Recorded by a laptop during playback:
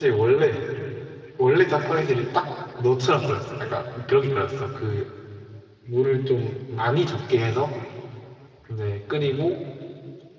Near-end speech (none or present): present